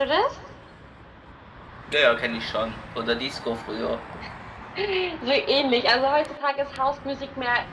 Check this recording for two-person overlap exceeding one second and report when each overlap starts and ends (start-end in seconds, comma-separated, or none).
none